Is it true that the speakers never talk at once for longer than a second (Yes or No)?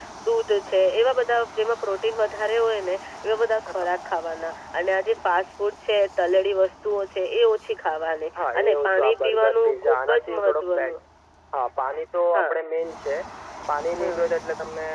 No